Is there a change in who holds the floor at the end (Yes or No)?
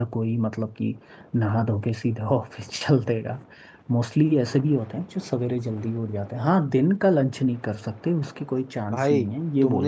Yes